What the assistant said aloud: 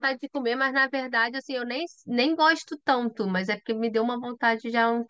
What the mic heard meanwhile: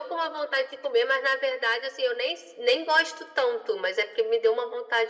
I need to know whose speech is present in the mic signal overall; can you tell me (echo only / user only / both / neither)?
echo only